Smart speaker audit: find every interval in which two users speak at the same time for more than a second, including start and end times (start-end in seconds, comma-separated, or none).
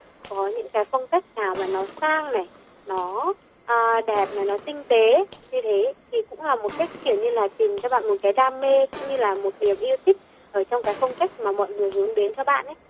none